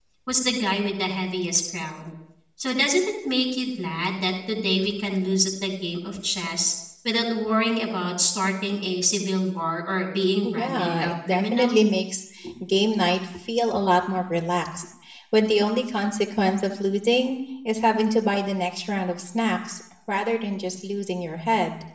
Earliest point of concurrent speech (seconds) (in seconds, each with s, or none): 10.4 s